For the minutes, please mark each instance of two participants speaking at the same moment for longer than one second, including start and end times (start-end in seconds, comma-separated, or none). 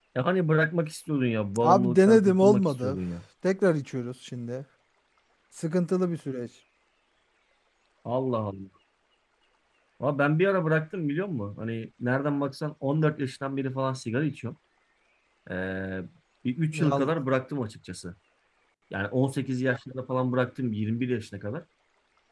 1.6-3.0